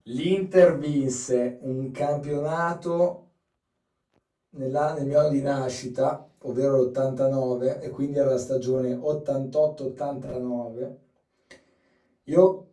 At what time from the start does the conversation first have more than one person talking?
none

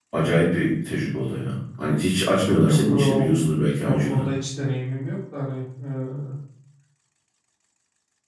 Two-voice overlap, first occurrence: 2.6 s

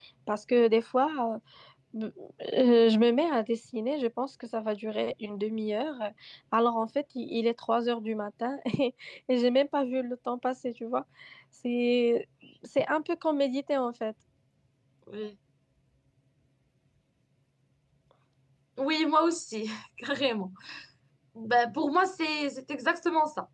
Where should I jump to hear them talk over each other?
none

